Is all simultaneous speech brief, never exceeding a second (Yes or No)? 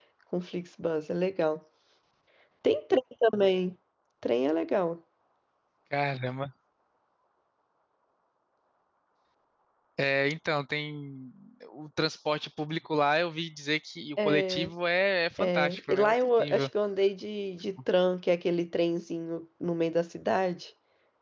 No